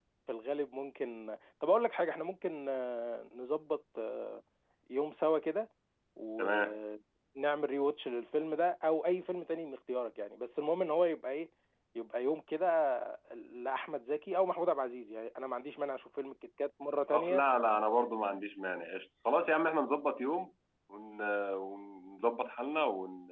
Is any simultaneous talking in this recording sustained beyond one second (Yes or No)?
No